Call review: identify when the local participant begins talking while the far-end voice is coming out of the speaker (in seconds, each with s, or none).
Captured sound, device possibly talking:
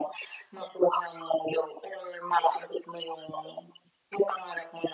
none